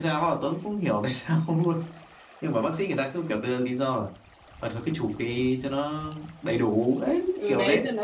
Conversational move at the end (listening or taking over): taking over